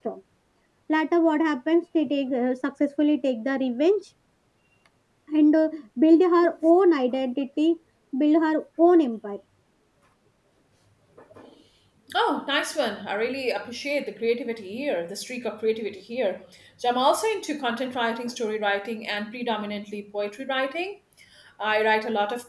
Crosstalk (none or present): none